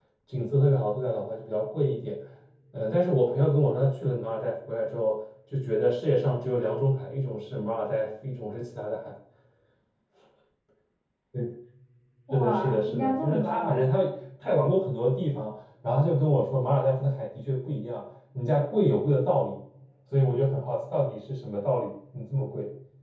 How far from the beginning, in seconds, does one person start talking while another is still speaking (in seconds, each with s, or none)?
12.3 s